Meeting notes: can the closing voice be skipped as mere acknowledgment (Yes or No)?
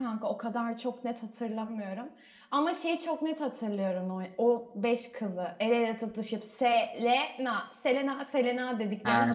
No